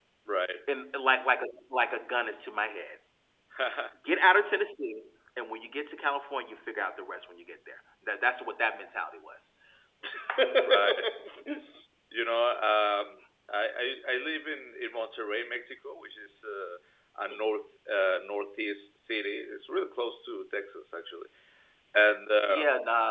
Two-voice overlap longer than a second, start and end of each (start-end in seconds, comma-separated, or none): none